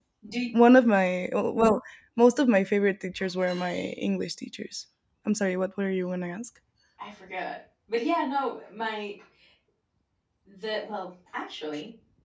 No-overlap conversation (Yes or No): Yes